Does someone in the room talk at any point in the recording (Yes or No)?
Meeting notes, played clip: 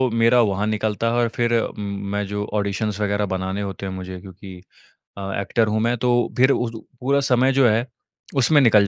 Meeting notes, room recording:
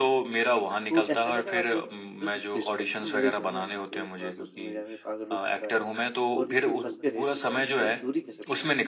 Yes